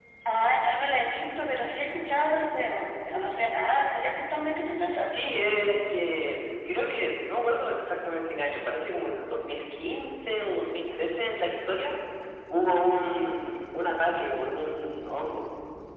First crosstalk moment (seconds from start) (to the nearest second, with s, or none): none